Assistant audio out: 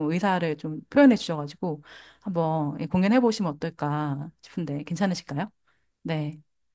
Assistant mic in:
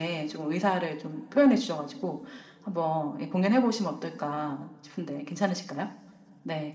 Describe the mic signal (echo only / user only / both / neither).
echo only